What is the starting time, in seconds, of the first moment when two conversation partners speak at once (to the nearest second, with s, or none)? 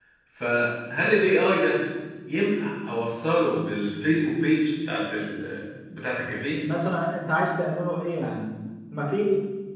none